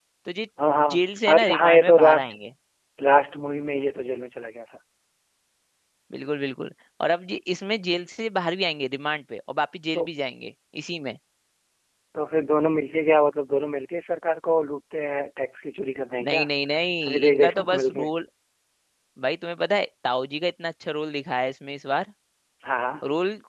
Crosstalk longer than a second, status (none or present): present